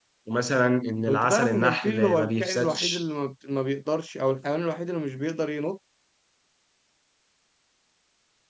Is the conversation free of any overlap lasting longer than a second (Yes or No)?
No